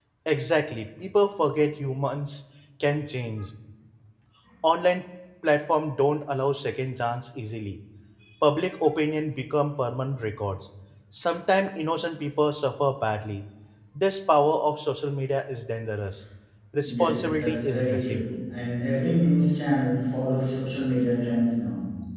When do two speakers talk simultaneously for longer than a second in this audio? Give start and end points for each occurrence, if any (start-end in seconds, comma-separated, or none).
16.8-18.2